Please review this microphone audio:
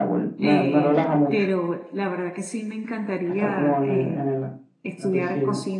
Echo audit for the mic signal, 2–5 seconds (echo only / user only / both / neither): both